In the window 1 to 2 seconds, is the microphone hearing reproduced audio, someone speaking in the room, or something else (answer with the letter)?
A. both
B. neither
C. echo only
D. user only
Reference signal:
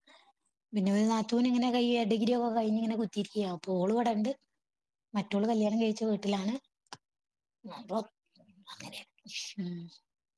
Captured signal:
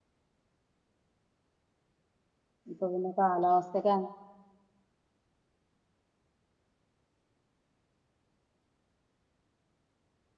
B